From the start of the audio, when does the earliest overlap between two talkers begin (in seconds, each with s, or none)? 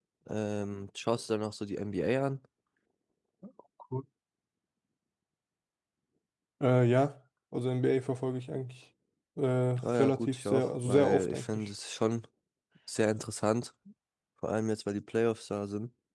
10.0 s